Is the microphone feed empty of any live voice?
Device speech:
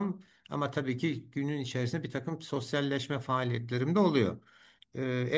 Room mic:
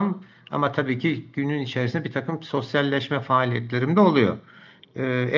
Yes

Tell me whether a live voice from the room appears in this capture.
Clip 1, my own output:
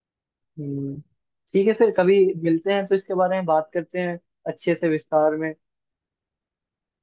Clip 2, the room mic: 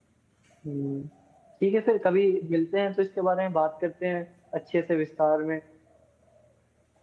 No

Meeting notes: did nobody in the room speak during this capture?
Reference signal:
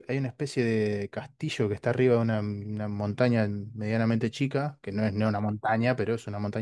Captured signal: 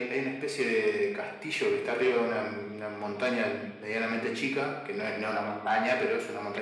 Yes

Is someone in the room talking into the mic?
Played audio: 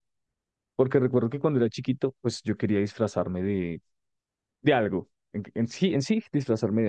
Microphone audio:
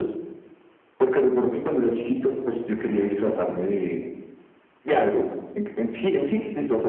No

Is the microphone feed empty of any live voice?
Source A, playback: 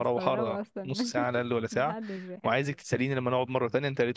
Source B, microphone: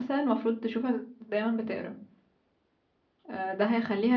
No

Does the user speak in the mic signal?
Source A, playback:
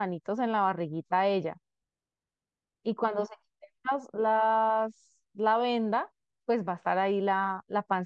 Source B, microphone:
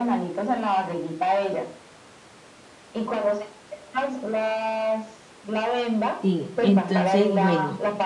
Yes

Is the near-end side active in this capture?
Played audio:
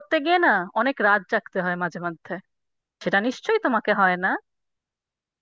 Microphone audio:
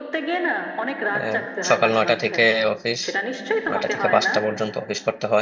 Yes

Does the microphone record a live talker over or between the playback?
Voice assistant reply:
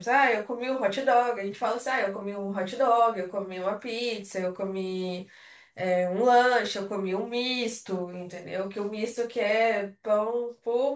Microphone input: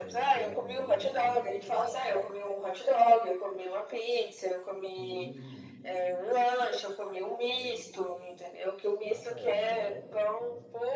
Yes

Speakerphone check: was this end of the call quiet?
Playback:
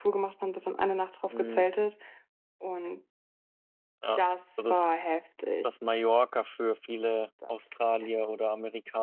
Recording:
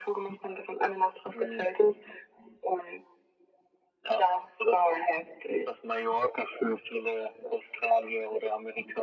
Yes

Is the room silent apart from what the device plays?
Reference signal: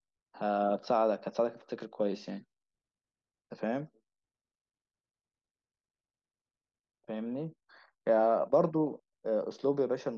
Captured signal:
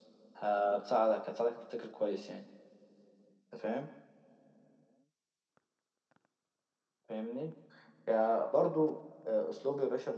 Yes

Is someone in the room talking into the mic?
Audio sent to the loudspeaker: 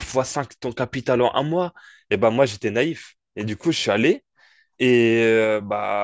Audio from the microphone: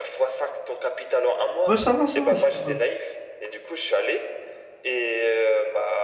Yes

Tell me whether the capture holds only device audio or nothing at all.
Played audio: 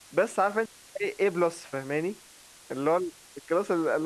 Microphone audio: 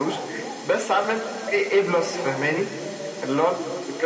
No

